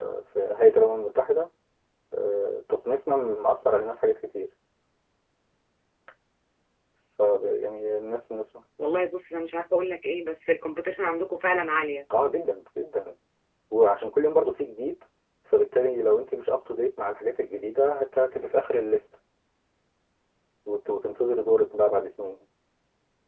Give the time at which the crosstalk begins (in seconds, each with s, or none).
none